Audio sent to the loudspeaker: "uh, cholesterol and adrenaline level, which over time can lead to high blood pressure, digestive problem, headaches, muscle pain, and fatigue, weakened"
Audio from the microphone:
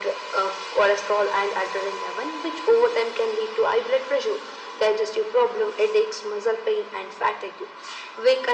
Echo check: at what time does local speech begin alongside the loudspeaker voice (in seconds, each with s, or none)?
none